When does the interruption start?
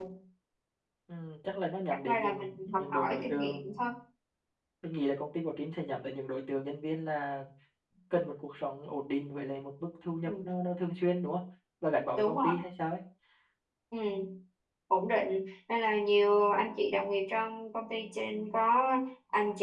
1.9 s

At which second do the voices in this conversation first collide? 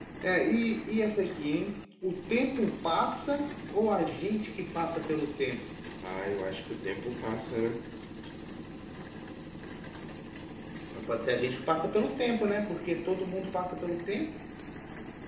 none

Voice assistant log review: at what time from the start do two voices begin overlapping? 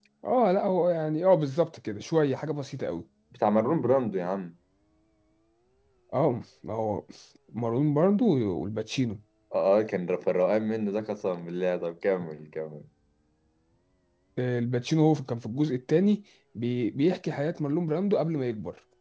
none

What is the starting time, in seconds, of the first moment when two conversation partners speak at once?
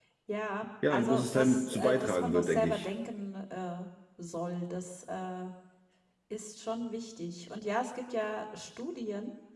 0.9 s

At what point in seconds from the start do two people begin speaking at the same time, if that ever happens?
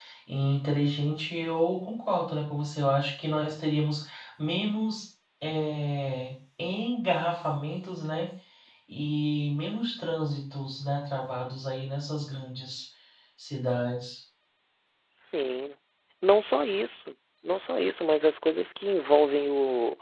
none

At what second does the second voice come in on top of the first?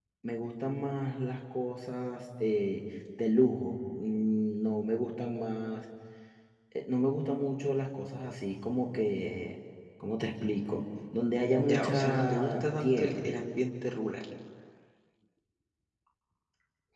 11.6 s

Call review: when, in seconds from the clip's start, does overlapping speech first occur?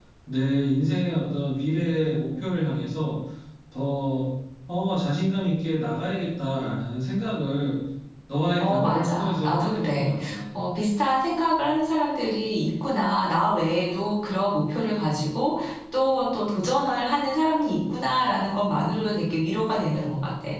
8.6 s

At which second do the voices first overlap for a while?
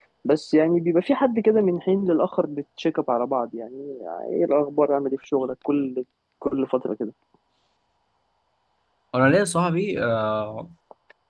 none

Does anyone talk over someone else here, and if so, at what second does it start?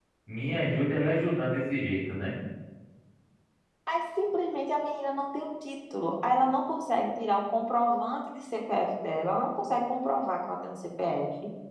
none

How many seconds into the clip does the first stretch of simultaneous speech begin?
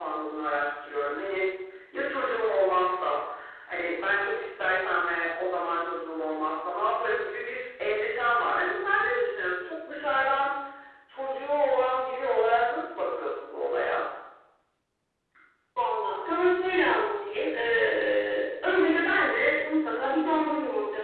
none

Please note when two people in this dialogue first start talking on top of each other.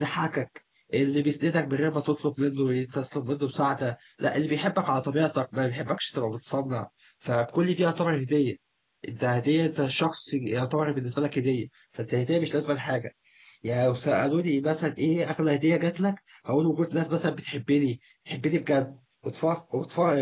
none

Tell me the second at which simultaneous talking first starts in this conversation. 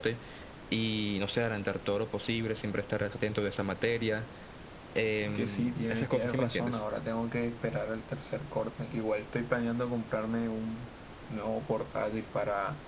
5.2 s

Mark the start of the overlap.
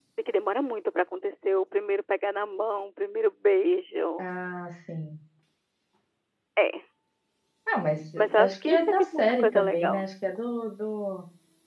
8.2 s

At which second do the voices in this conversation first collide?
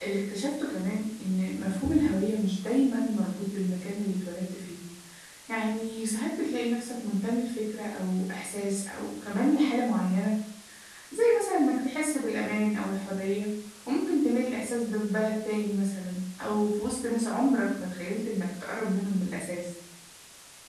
none

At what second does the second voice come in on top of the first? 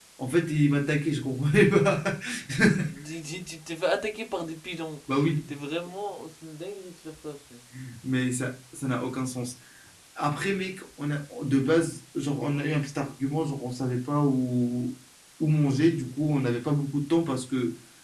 none

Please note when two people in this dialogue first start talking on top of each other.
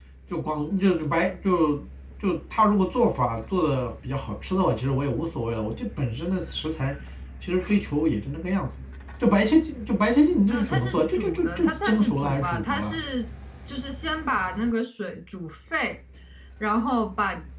10.5 s

